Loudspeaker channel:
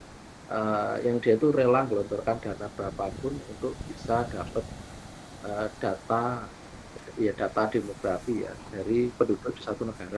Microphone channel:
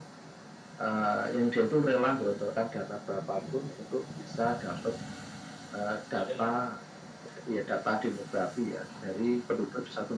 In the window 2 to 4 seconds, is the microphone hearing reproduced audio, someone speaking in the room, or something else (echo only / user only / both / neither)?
echo only